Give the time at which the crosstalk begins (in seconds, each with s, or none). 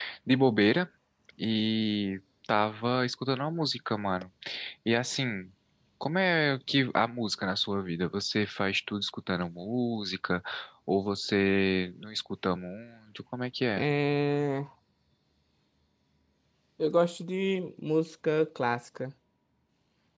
none